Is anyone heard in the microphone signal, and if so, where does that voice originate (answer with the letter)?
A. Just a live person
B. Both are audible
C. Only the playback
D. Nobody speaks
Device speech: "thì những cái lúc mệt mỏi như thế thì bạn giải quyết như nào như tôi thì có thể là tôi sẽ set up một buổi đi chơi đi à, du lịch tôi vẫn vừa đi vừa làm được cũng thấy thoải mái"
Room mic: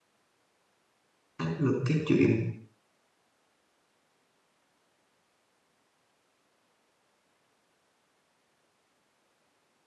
A